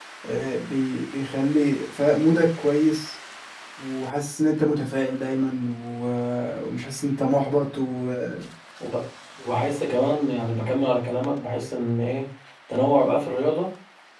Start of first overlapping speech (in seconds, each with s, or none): none